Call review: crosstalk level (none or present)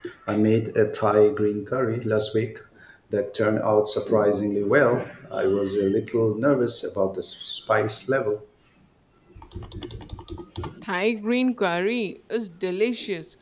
none